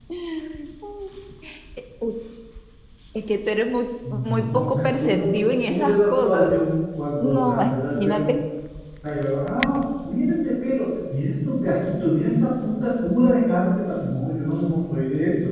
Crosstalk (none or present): present